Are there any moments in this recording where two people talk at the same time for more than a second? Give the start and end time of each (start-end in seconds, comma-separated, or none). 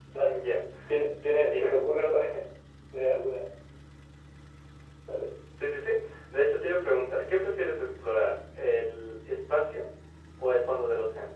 none